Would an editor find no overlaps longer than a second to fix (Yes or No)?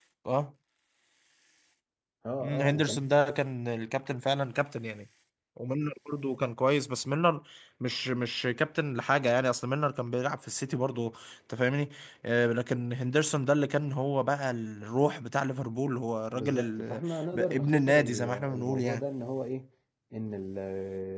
No